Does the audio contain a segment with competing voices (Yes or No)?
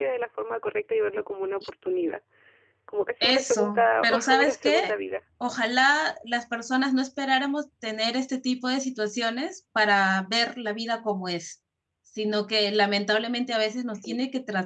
Yes